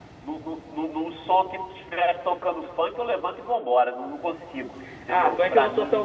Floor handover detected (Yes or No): Yes